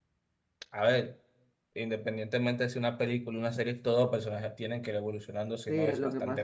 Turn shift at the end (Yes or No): Yes